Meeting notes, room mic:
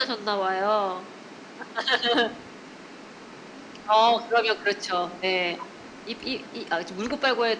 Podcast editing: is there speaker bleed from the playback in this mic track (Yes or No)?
Yes